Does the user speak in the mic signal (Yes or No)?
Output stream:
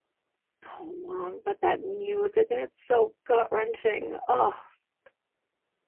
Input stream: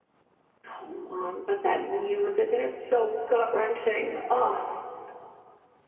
No